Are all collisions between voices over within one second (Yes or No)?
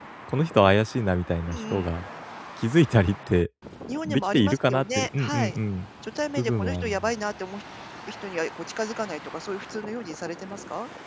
No